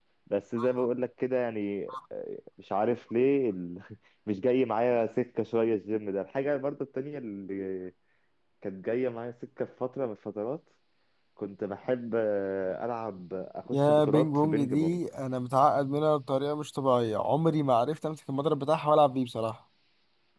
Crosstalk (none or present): present